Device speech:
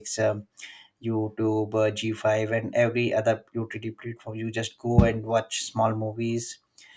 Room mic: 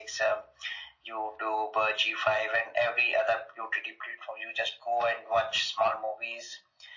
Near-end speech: none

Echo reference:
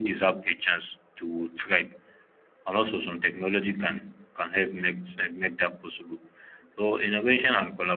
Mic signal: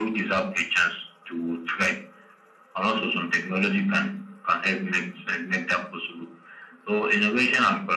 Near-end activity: none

